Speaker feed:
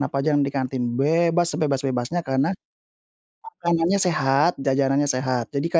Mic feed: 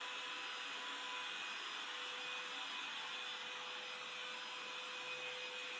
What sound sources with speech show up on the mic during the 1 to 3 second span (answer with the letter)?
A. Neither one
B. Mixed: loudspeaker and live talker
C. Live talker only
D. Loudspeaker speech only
A